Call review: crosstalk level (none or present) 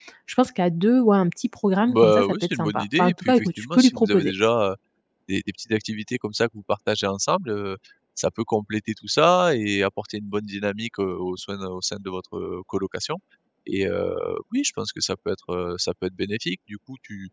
present